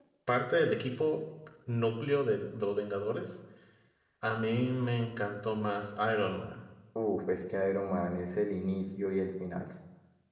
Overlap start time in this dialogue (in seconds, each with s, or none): none